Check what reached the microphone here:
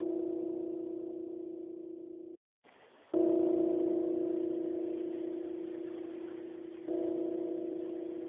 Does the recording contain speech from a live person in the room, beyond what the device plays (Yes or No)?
No